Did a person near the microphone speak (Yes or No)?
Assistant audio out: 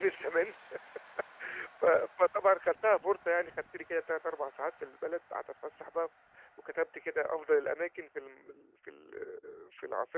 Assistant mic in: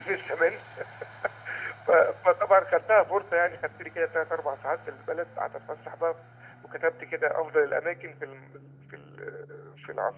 No